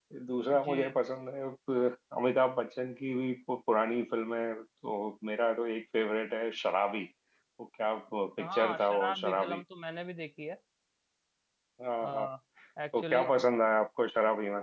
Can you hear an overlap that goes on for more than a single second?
Yes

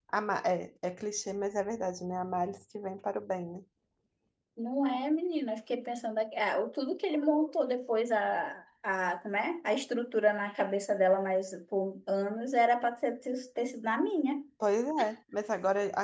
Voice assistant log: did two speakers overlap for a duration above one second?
No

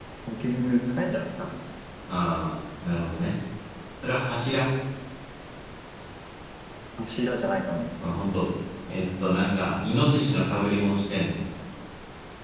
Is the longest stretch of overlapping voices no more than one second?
Yes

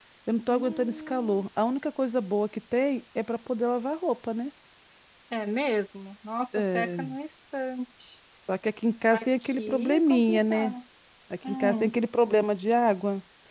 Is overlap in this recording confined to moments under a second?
No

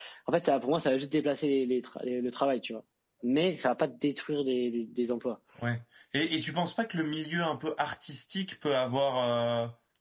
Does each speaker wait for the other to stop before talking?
Yes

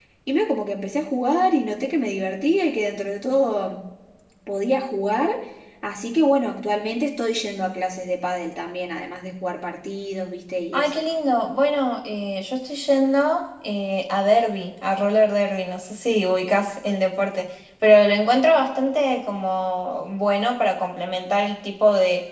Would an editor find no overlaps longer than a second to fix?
Yes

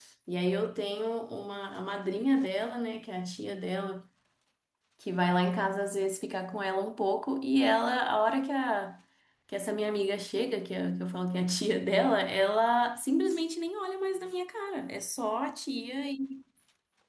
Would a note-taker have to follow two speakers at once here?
No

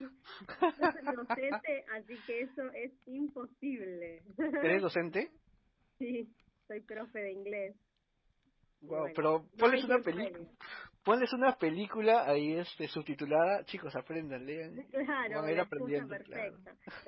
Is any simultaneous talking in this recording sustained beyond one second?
Yes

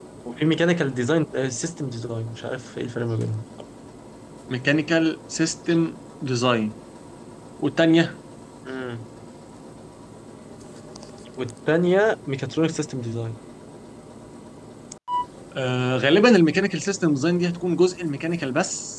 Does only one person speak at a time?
Yes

